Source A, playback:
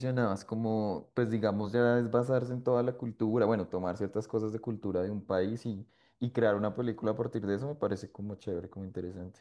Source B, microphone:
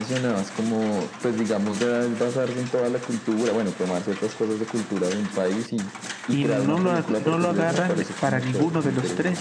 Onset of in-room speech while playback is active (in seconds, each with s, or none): 6.3 s